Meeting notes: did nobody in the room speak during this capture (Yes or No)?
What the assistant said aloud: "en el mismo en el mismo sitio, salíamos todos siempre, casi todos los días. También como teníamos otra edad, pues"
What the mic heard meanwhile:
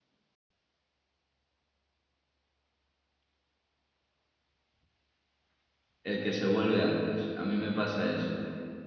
No